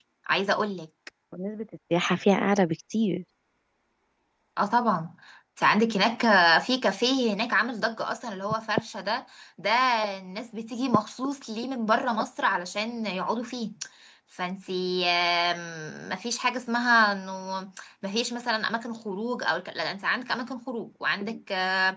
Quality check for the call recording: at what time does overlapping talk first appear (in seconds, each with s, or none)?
none